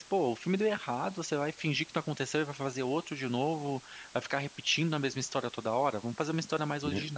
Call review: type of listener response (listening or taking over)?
listening